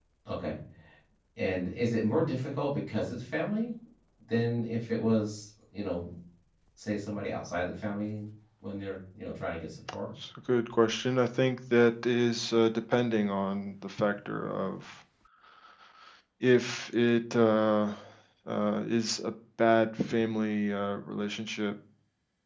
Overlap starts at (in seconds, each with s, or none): none